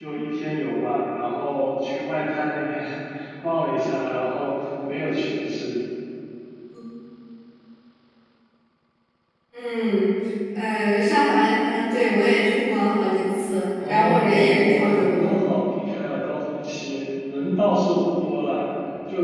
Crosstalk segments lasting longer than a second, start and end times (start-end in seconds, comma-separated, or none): 13.8-15.4